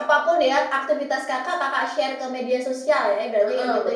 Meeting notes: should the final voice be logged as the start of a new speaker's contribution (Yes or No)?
Yes